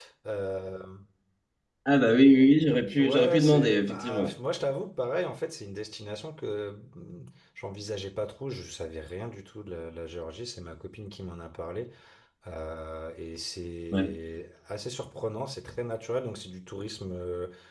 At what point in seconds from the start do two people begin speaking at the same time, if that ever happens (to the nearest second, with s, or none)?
3 s